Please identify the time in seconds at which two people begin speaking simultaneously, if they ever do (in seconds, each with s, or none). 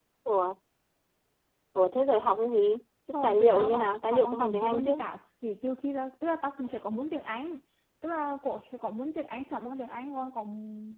3.1 s